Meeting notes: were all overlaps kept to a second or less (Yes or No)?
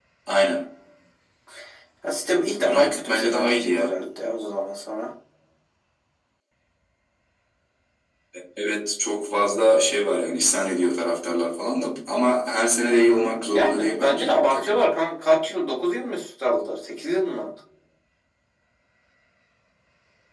No